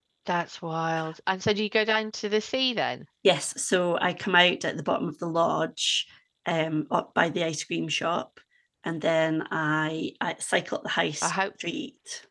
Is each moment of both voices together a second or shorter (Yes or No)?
Yes